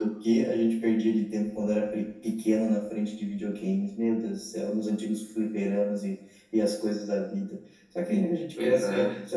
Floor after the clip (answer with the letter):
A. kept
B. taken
A